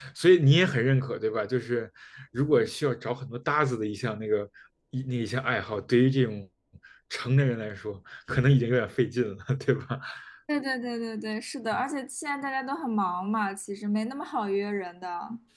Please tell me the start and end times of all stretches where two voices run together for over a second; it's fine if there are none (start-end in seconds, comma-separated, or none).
none